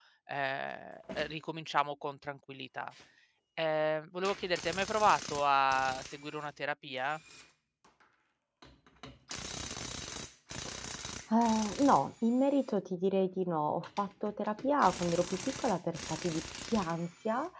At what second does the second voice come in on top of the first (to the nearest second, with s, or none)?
none